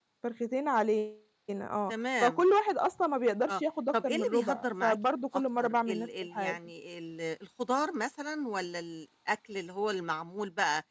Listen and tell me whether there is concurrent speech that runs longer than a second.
Yes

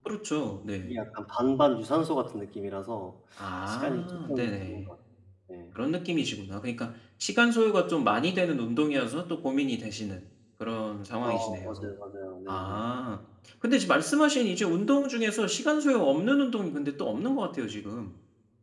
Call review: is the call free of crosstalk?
No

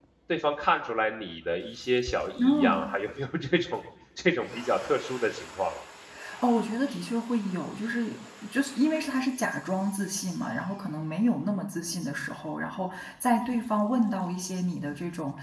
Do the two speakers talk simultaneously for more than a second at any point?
No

